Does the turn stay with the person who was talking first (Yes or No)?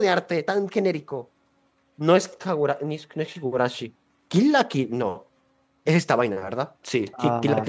Yes